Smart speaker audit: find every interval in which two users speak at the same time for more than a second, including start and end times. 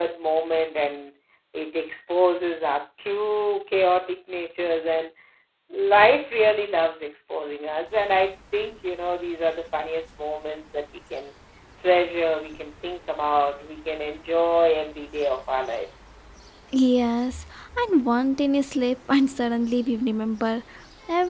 none

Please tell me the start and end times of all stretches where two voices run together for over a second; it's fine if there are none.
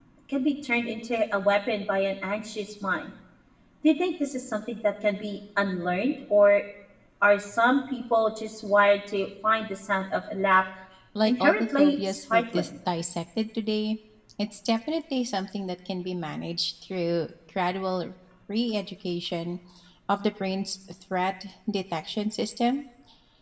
11.2-12.7

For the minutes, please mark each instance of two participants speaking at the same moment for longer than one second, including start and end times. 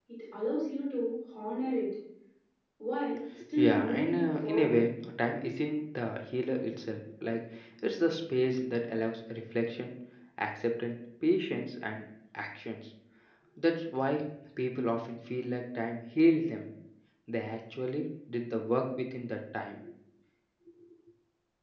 3.5-4.8

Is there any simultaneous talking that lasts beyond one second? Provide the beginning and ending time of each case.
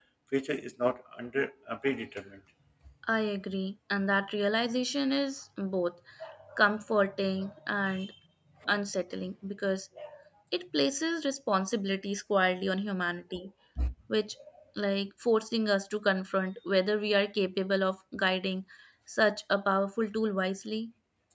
none

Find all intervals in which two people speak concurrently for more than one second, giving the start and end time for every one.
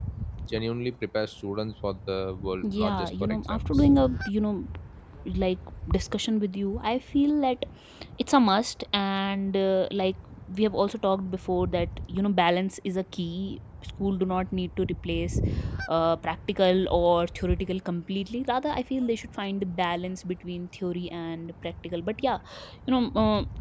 2.6-3.9

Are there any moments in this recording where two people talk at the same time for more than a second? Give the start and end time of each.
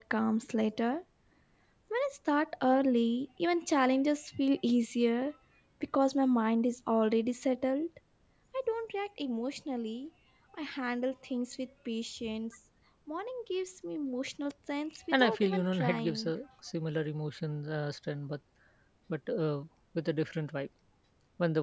15.1-16.3

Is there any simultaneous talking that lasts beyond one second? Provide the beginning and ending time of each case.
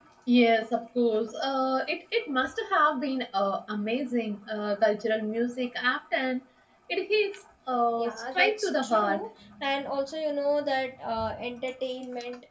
8.0-9.2

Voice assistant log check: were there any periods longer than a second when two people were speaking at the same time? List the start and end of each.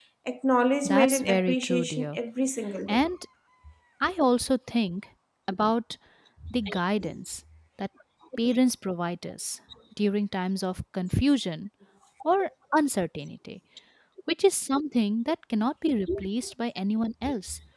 0.8-2.2

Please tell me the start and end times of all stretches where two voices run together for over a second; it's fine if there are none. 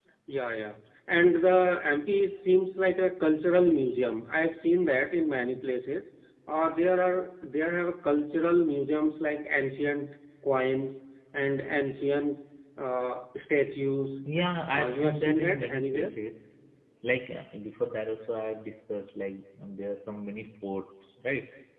14.7-16.1

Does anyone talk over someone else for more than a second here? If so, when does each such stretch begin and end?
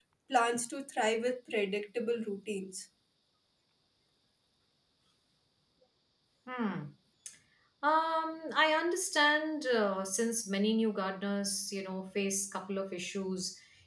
none

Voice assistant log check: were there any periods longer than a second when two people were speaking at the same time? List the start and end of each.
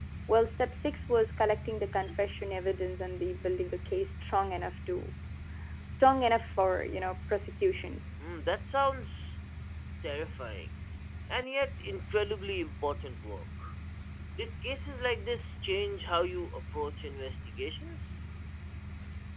none

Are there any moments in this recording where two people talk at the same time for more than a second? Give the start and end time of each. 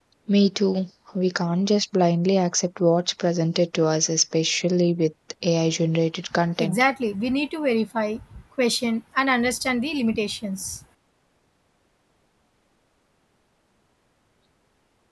none

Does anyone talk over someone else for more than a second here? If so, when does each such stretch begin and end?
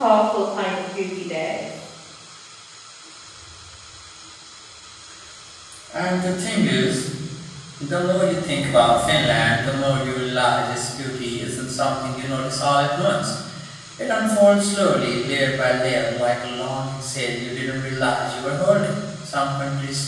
none

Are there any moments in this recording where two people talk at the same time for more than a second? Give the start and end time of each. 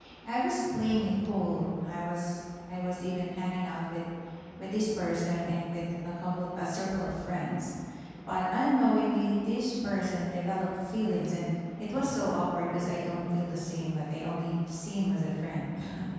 none

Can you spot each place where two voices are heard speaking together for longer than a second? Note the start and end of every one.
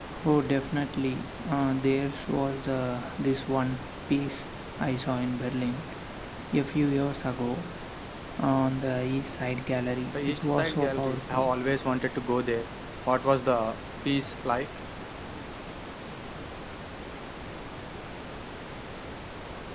10.1-11.5

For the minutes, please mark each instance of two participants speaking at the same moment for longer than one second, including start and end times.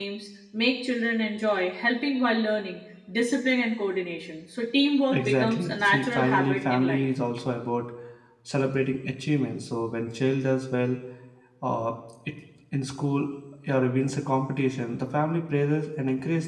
5.1-7.1

